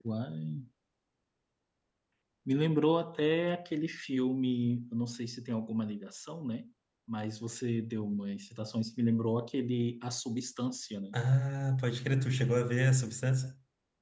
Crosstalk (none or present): none